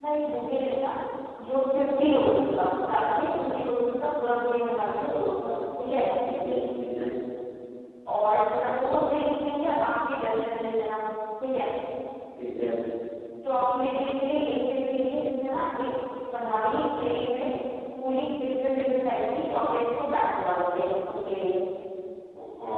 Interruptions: none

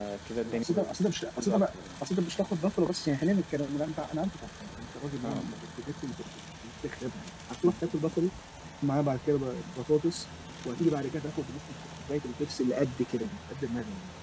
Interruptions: present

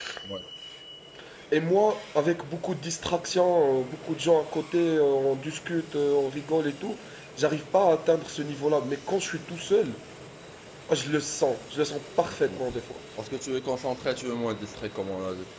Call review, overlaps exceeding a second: none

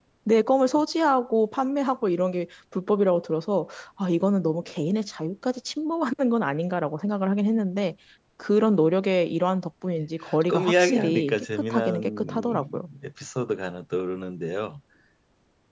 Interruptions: present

